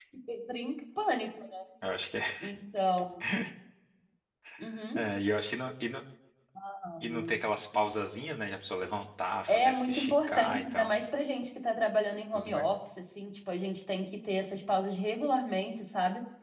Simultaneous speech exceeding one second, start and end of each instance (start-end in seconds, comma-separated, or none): 9.5-10.9